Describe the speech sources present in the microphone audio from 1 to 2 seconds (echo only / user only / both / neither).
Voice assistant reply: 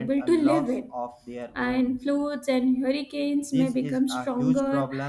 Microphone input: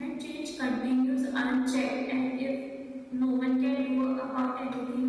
user only